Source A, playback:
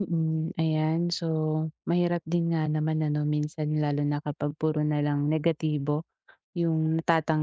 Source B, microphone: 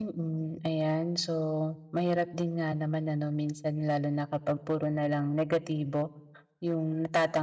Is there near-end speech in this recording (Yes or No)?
No